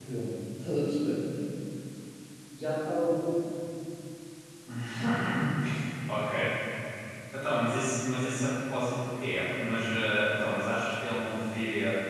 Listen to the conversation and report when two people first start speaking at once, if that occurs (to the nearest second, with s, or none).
none